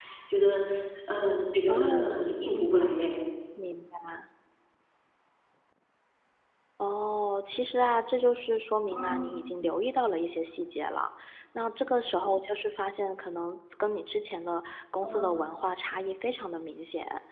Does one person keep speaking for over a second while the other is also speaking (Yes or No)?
No